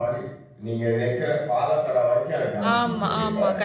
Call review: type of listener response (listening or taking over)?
taking over